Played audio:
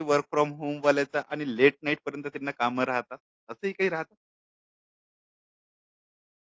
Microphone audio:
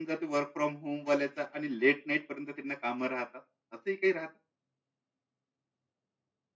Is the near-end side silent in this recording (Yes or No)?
Yes